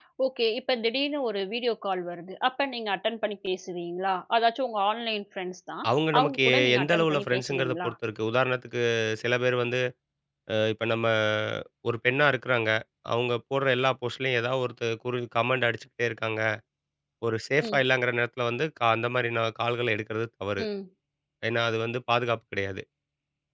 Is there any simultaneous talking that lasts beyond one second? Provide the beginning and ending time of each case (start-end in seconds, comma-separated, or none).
6.1-7.9